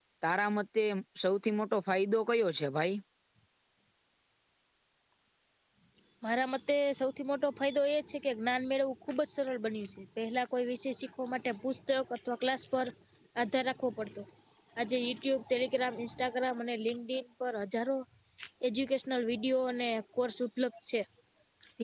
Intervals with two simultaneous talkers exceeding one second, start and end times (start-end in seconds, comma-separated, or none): none